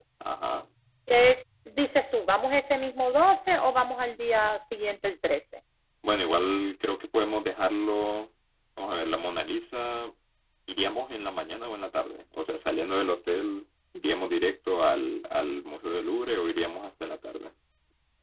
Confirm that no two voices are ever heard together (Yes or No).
Yes